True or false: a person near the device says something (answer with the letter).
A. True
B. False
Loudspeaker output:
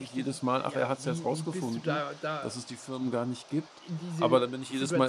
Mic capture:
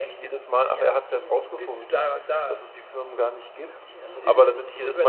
A